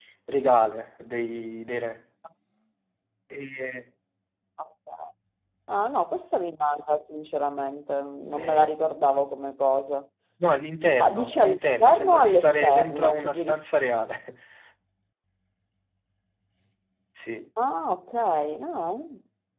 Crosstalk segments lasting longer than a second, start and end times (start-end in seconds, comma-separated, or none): 11.0-13.6